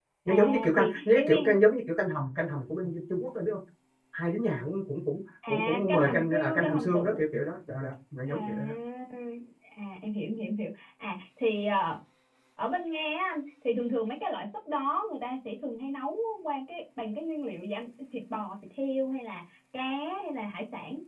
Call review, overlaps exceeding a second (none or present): present